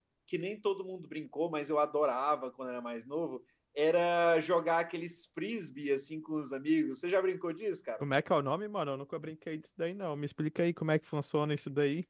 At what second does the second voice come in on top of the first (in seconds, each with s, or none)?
none